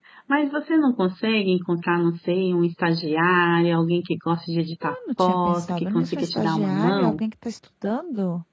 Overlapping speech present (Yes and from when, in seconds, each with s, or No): Yes, from 4.8 s